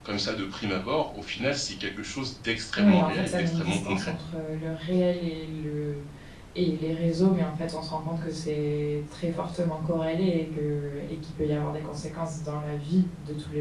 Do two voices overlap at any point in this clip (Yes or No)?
Yes